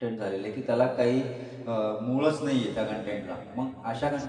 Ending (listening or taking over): listening